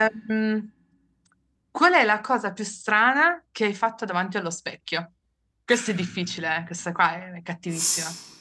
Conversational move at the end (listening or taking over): taking over